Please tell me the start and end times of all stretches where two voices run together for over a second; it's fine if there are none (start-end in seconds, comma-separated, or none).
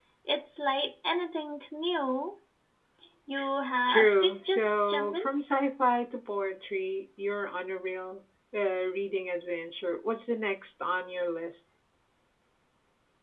3.9-5.2